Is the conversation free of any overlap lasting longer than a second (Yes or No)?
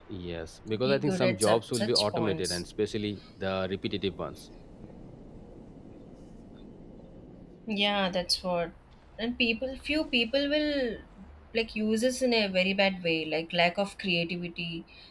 No